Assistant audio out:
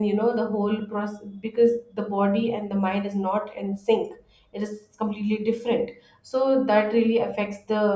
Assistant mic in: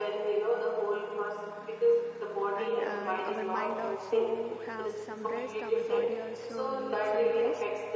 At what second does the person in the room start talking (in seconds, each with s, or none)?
2.5 s